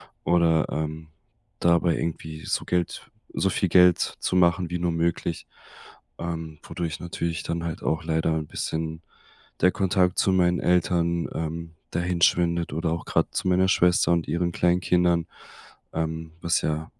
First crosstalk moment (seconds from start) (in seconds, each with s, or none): none